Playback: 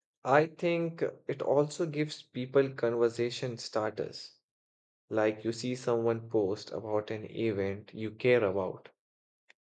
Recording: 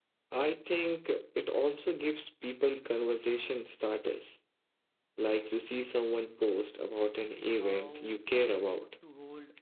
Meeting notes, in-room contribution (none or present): present